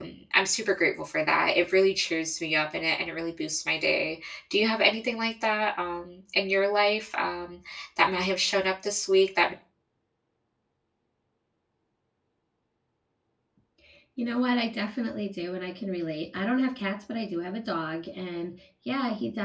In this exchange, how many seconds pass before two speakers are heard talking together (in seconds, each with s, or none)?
none